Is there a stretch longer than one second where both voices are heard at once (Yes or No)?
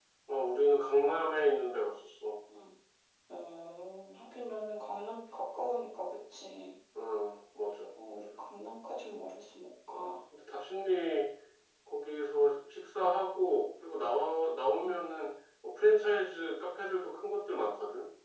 No